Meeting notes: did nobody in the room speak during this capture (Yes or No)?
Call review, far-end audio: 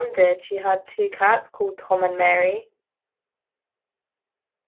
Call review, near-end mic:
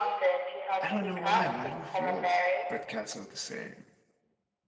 No